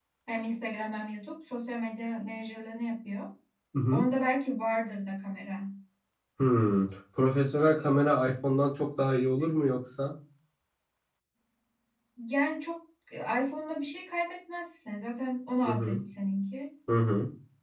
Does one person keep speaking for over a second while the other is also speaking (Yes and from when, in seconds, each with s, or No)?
No